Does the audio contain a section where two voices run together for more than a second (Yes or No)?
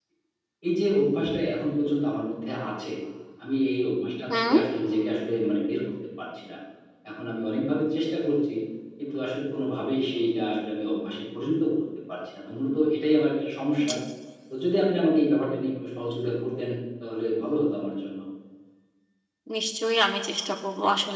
No